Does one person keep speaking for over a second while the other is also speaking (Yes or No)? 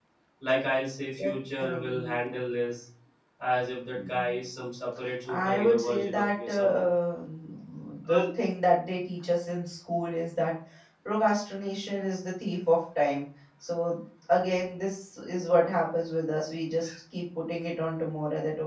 Yes